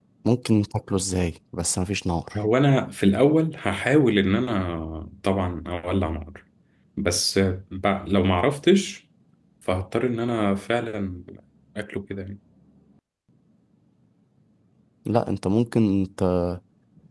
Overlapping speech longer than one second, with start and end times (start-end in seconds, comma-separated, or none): none